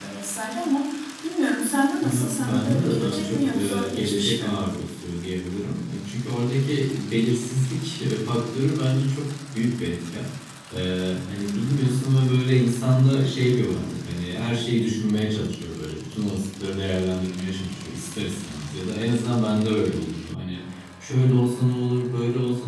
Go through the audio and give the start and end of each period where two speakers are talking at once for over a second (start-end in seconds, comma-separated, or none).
2.0-4.6